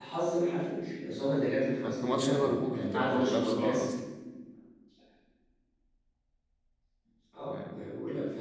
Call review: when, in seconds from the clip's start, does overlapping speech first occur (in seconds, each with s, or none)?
1.8 s